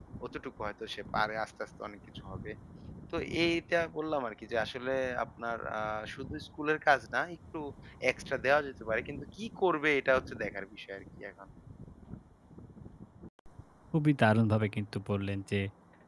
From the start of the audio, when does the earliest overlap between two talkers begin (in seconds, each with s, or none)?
none